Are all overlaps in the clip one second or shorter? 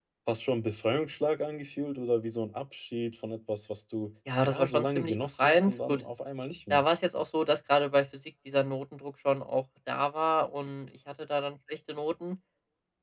No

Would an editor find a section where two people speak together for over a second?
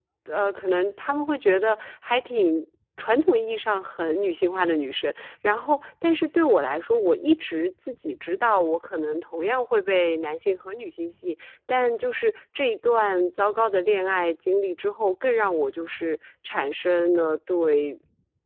No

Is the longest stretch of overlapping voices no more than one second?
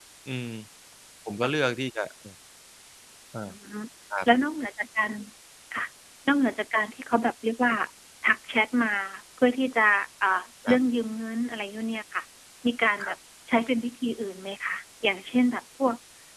Yes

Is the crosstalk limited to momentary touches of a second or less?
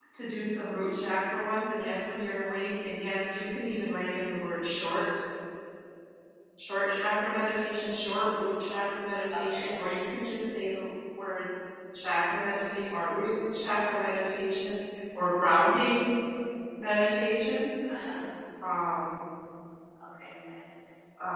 Yes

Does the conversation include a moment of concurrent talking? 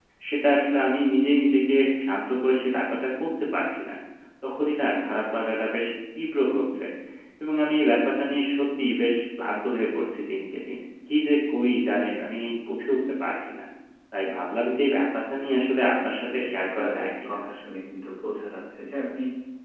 Yes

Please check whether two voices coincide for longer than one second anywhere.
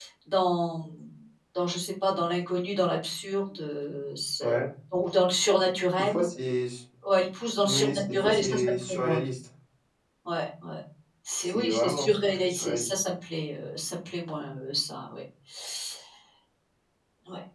Yes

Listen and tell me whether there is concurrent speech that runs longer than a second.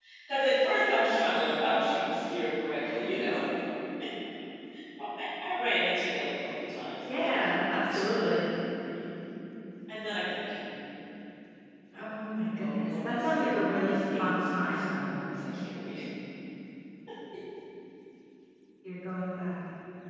Yes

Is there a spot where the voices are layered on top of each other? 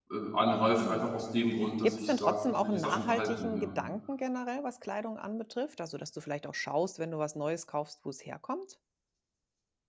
Yes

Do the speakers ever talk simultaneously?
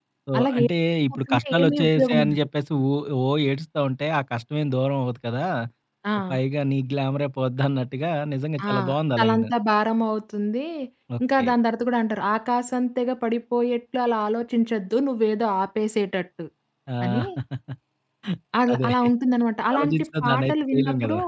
Yes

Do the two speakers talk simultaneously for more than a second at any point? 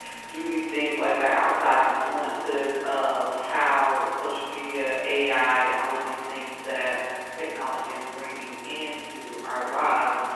No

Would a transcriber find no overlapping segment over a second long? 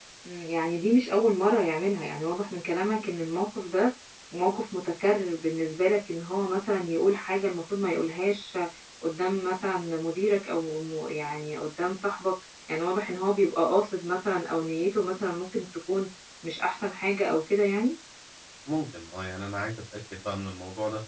Yes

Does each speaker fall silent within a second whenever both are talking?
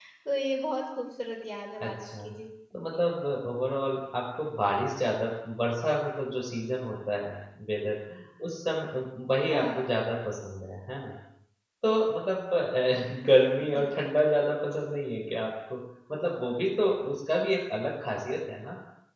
Yes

